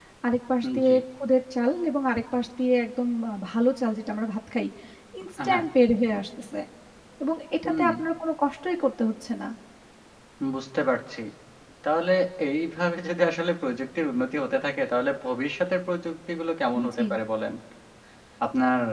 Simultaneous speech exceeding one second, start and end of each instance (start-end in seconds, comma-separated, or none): none